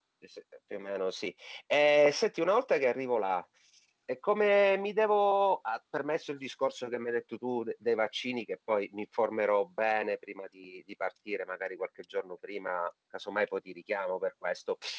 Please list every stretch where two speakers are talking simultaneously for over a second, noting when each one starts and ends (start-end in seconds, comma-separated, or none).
none